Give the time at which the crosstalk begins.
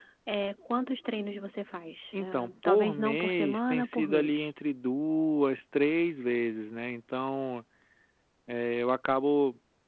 2.1 s

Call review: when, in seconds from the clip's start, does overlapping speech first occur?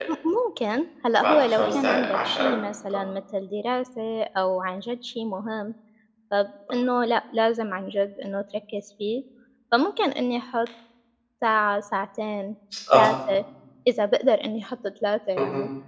1.2 s

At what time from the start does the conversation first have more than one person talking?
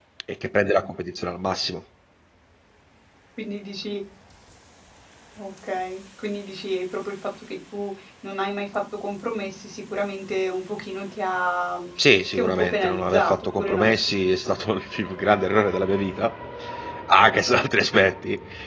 12.3 s

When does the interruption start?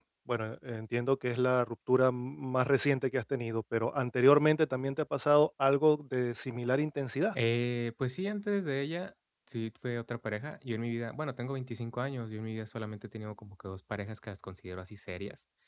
none

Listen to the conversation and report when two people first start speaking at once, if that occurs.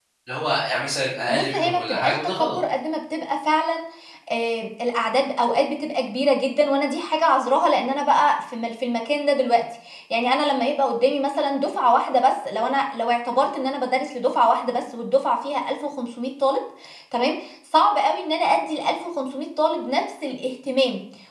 1.3 s

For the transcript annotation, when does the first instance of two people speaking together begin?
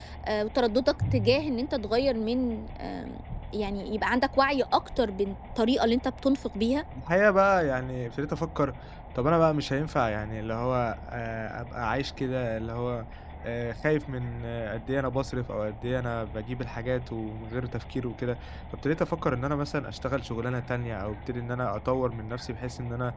none

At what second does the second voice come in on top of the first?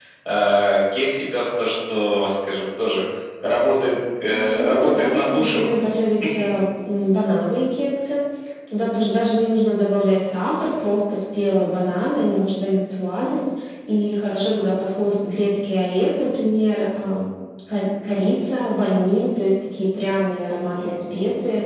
4.3 s

